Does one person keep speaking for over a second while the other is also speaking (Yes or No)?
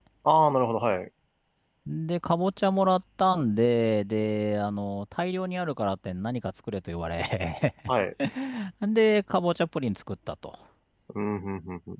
No